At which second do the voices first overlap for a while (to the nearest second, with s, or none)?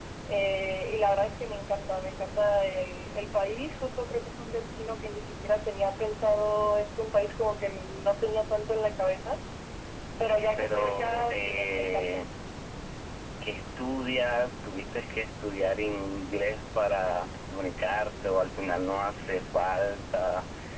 10 s